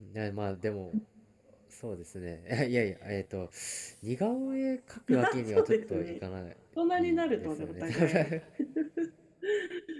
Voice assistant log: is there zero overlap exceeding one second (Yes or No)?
No